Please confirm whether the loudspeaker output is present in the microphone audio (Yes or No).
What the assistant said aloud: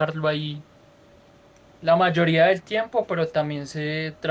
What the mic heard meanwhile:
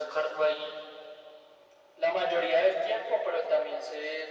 Yes